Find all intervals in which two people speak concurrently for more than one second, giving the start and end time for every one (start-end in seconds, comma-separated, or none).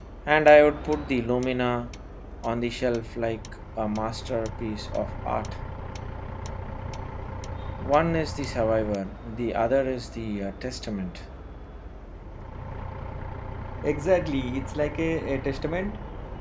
none